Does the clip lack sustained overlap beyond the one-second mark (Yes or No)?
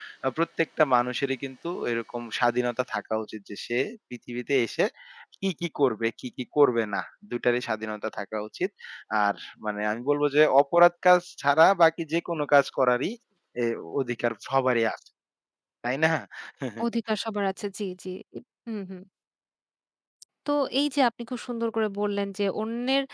Yes